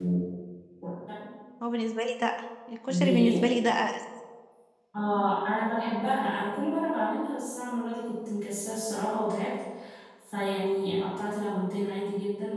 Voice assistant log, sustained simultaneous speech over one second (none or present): none